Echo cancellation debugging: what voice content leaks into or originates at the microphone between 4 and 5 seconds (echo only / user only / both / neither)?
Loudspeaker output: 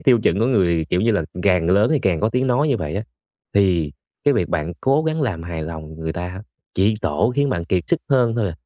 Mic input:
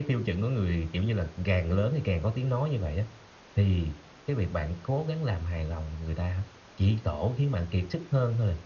echo only